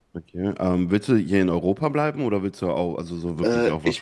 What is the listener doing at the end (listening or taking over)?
taking over